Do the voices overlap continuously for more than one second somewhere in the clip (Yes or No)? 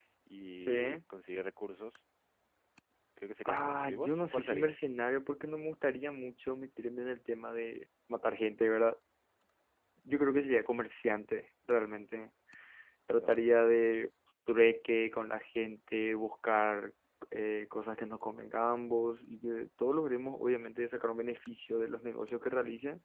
Yes